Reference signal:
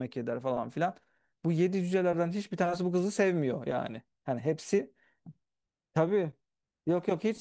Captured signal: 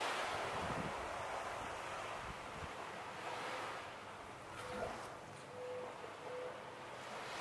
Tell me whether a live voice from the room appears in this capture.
No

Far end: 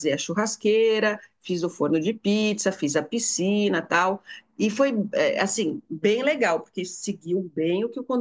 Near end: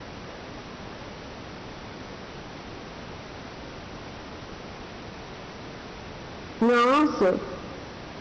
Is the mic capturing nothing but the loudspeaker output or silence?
No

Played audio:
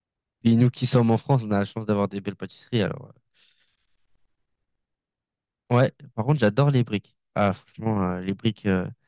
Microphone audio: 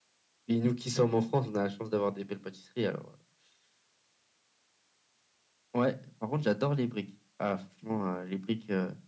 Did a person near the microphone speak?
No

